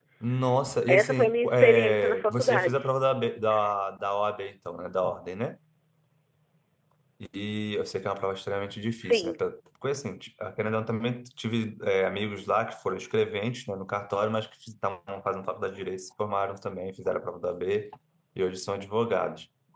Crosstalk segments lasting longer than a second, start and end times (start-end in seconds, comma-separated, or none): 0.9-2.8